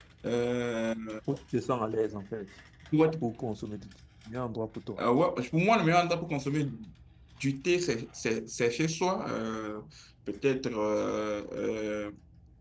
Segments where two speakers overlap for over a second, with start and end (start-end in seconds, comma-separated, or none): none